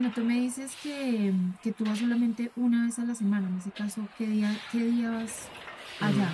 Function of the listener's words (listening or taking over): taking over